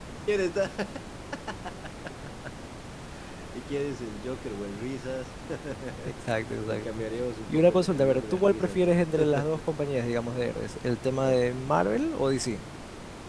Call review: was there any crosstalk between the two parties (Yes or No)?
Yes